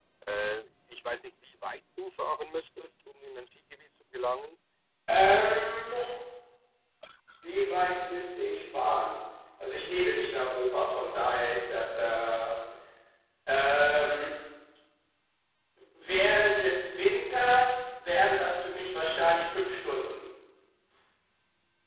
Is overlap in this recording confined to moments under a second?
Yes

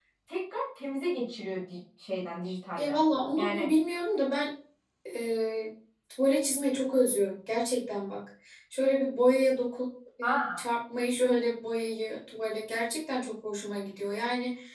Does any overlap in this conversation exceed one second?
No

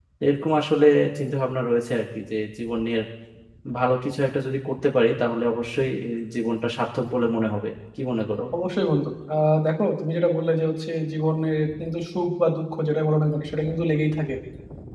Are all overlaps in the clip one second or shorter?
Yes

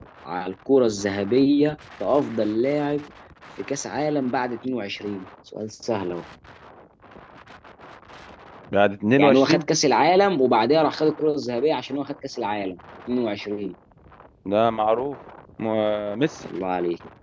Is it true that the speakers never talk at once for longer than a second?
Yes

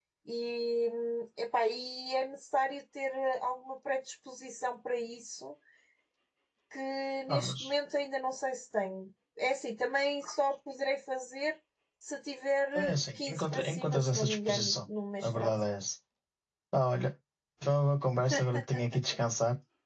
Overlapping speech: Yes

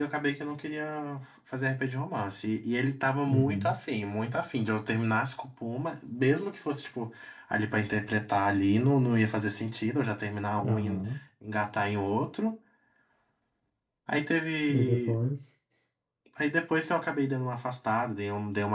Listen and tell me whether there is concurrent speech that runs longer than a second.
No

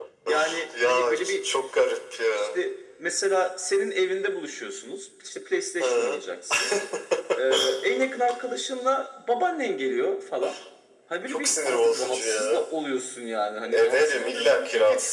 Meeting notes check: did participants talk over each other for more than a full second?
Yes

